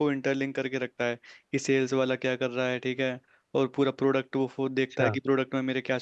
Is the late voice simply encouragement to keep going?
Yes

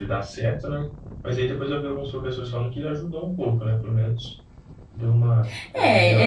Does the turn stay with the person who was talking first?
No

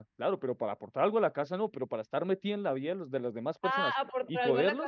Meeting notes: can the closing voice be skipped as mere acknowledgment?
No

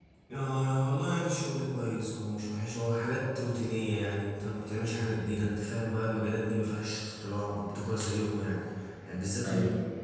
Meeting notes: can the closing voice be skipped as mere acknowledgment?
Yes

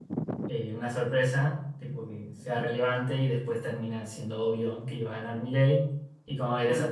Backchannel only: Yes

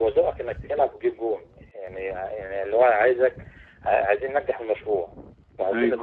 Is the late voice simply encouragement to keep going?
No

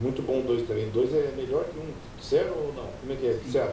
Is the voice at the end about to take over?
Yes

